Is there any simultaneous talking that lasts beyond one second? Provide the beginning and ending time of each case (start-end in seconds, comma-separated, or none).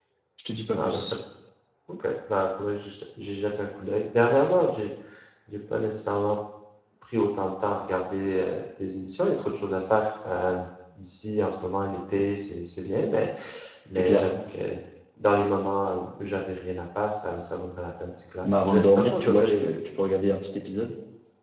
18.4-19.7